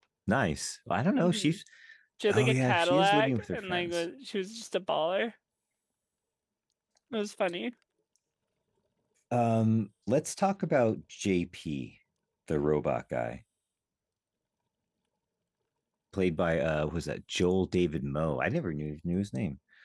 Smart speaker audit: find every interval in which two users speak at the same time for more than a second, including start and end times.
2.3-4.0

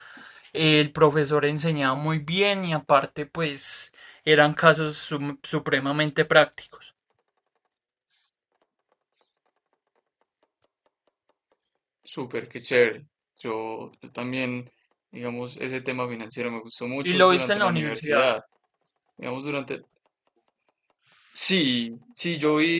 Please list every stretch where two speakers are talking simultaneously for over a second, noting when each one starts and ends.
17.0-18.3

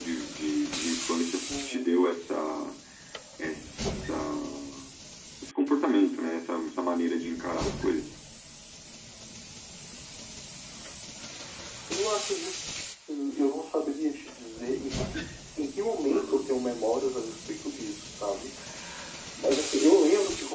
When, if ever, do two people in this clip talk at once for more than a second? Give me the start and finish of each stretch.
none

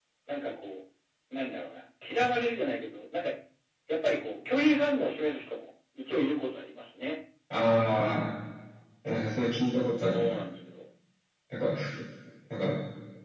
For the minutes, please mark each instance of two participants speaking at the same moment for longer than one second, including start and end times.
none

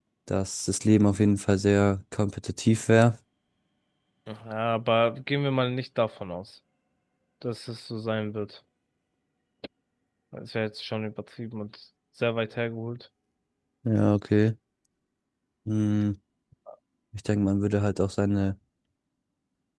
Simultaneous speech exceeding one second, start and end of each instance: none

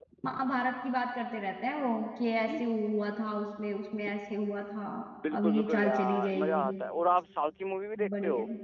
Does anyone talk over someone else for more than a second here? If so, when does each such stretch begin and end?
5.3-6.7

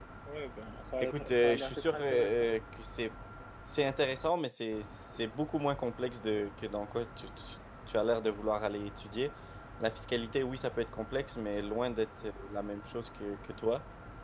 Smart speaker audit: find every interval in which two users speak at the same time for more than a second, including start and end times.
1.0-2.5

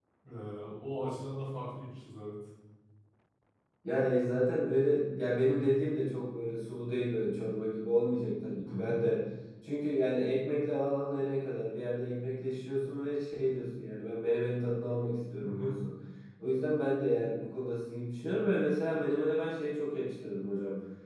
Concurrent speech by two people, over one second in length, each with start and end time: none

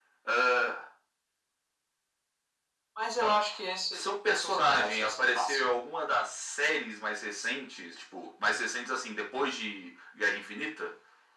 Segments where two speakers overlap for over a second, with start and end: 4.0-5.6

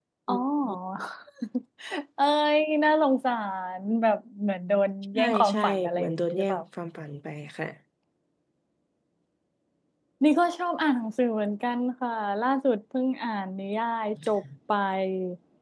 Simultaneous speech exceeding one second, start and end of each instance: 5.2-6.6

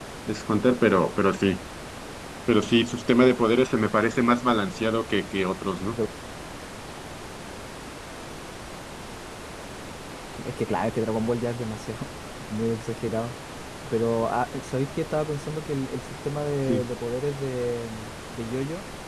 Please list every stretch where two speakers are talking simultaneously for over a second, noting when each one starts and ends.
none

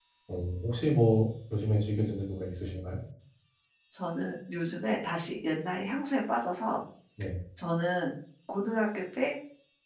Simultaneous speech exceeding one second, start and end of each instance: none

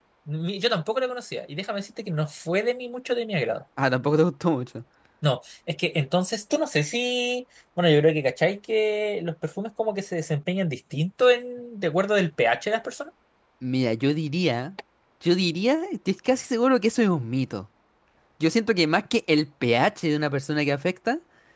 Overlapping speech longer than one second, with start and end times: none

